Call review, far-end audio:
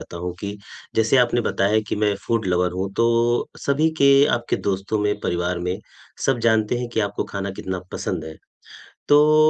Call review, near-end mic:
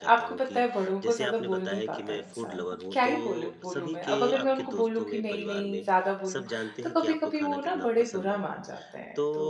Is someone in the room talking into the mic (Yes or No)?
Yes